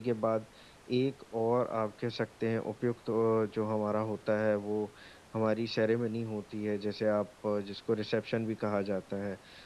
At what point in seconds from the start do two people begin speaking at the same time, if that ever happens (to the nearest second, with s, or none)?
none